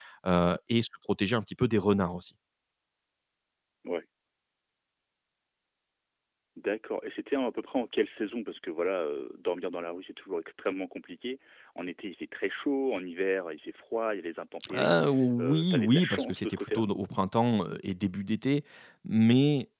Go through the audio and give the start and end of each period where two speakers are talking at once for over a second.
15.4-16.8

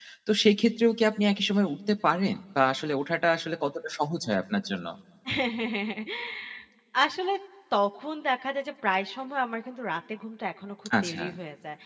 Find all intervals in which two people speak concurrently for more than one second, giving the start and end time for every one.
none

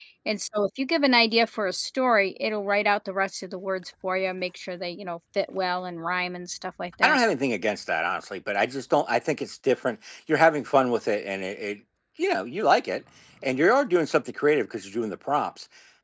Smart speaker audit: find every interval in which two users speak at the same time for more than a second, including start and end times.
none

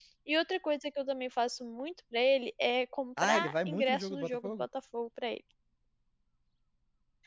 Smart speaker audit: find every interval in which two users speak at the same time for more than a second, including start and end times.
3.2-4.7

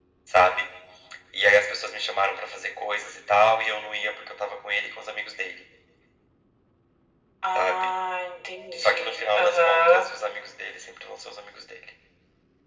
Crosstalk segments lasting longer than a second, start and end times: 8.8-10.1

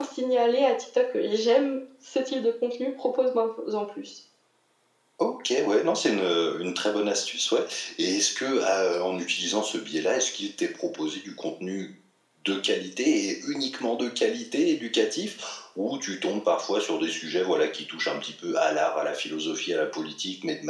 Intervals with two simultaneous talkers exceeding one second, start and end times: none

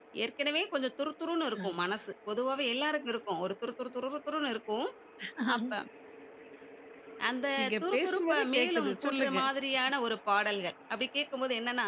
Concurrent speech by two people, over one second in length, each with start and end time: 7.6-9.4

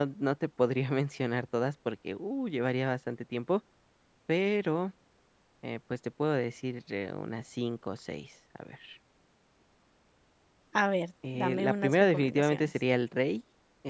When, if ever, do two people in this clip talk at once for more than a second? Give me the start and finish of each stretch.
11.3-12.8

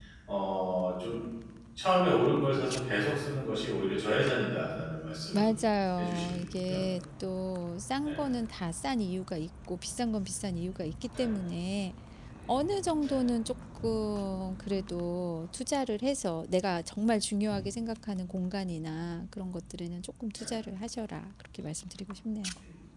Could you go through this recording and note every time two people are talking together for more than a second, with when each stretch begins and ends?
none

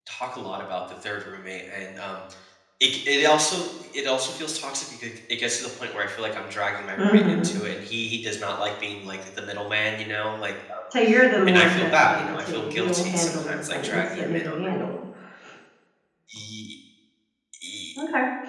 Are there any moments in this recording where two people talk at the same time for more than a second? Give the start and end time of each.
11.5-14.5

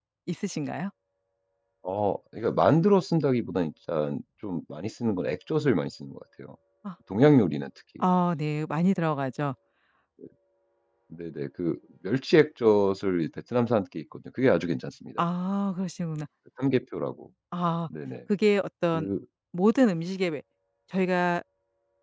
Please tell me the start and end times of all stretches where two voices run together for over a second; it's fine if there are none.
none

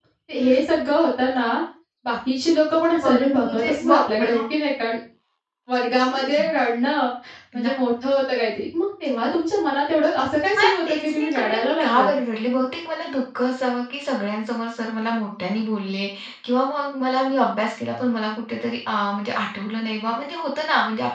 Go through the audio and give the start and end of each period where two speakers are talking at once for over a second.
3.0-4.4, 10.6-12.1

